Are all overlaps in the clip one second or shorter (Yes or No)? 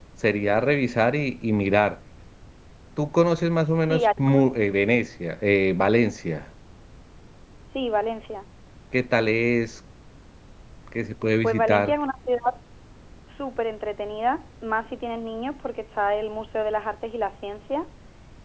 Yes